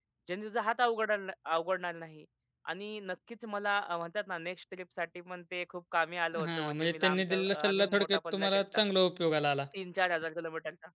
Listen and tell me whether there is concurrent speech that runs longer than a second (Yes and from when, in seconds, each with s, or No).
Yes, from 6.3 s